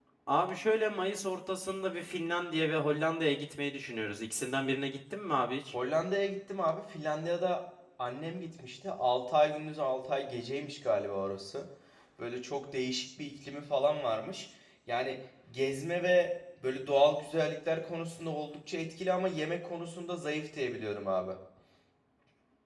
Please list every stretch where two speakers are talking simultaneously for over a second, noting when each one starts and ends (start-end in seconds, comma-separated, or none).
none